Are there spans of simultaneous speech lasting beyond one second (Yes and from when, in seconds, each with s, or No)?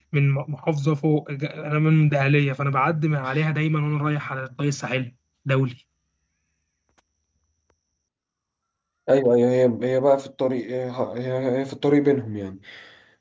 No